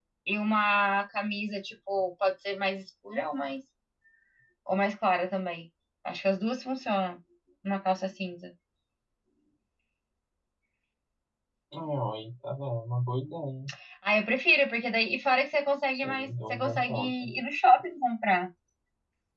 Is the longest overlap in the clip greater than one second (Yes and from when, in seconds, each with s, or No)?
Yes, from 15.9 s